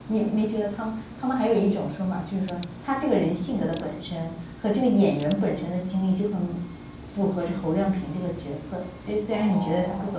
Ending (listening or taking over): taking over